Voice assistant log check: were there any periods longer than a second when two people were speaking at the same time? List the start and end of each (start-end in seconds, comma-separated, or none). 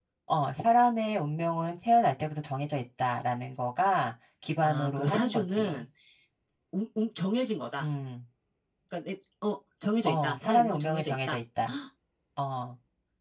4.6-5.8, 10.0-11.4